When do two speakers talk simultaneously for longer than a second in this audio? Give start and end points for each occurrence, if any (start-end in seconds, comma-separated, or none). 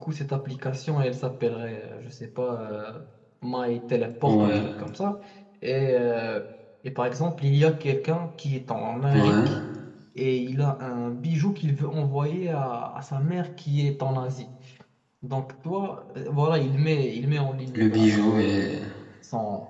none